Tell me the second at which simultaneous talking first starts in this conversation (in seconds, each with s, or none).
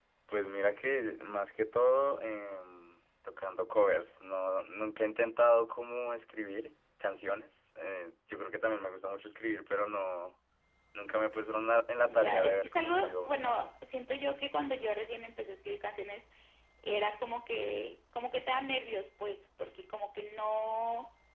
12.0 s